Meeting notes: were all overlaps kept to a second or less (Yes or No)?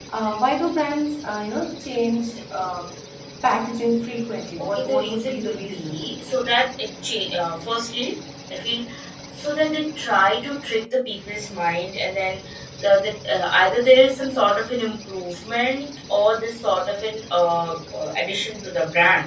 No